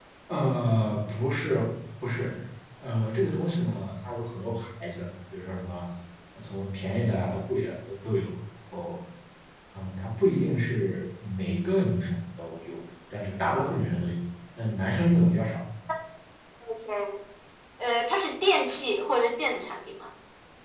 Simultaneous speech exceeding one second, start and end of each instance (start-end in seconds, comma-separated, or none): none